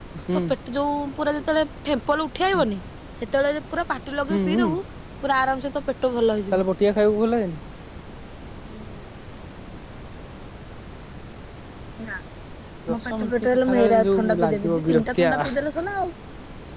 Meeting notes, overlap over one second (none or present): present